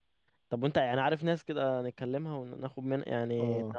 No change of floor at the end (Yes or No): No